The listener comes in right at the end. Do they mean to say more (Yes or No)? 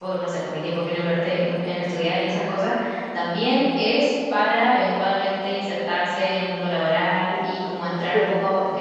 No